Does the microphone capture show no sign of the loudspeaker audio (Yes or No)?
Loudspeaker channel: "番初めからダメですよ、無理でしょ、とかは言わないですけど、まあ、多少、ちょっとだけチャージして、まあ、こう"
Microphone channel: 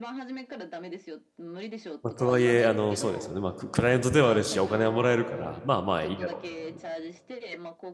No